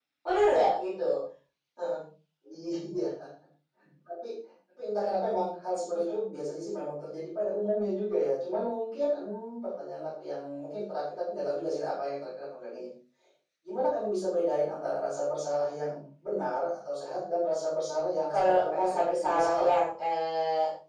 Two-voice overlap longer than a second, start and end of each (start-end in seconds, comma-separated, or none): 18.3-19.7